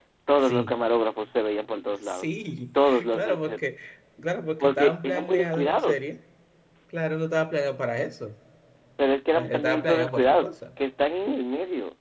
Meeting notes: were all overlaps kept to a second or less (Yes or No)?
No